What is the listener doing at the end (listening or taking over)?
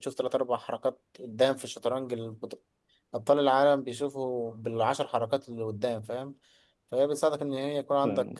listening